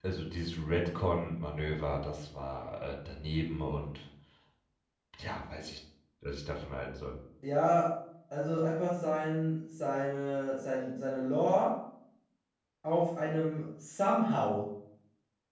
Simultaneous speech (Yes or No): No